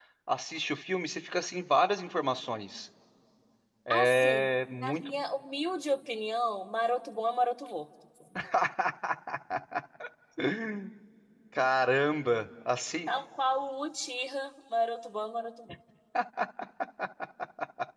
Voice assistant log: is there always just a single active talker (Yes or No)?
No